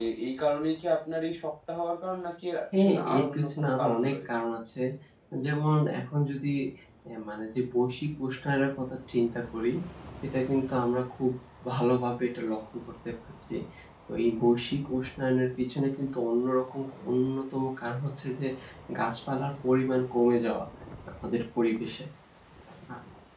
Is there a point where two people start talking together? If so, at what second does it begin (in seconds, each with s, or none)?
2.7 s